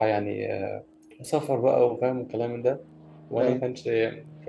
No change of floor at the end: Yes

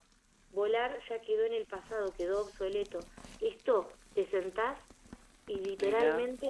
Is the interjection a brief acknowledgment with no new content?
Yes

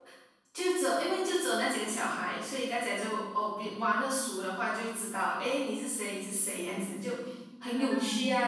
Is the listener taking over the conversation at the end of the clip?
No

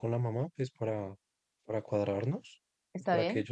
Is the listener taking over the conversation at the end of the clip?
No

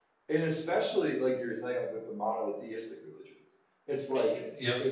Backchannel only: Yes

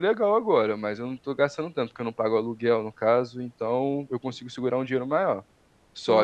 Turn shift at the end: No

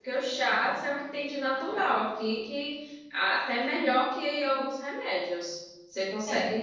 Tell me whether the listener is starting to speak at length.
No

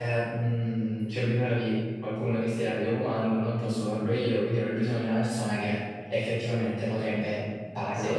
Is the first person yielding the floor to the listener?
No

